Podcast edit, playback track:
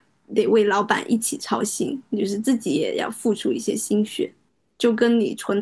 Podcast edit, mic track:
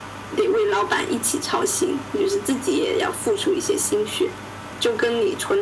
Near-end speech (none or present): none